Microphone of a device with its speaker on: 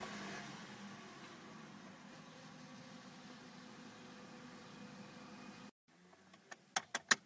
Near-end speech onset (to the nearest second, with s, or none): none